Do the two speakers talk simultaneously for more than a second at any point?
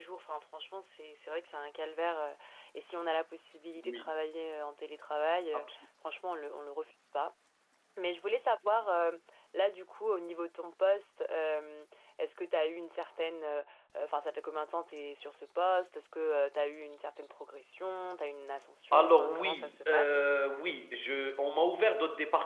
Yes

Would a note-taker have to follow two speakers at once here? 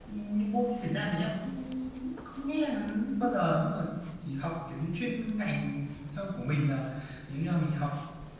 No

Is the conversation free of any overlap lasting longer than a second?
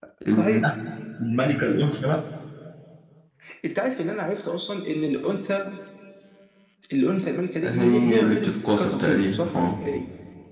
No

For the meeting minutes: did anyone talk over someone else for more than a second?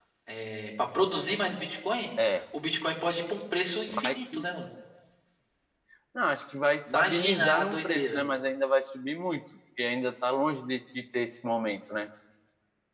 Yes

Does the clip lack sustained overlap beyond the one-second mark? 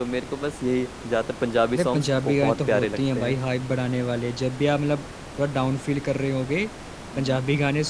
No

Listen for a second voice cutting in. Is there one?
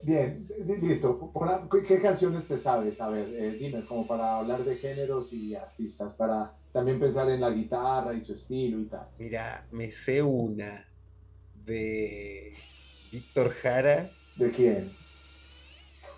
No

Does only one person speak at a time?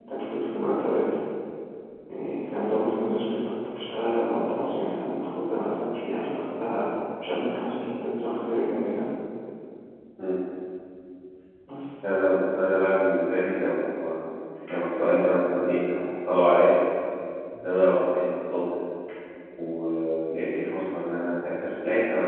Yes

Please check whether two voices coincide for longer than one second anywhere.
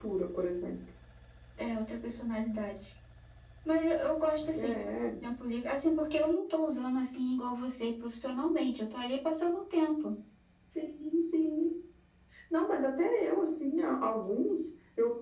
No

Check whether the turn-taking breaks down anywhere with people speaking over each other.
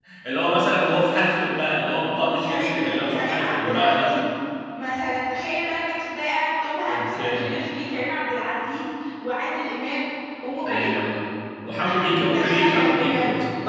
Yes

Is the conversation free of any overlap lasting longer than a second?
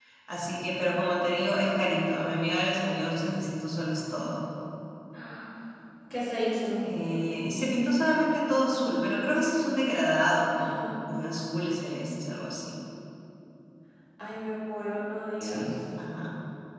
Yes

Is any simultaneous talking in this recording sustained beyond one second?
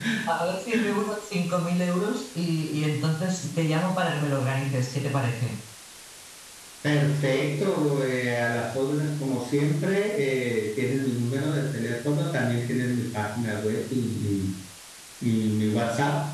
No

